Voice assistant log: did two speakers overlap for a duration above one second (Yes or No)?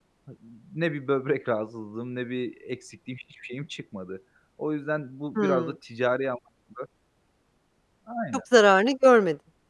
No